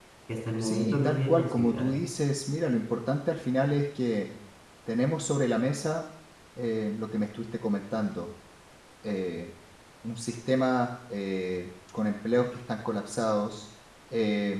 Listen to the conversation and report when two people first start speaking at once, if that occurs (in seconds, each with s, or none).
0.6 s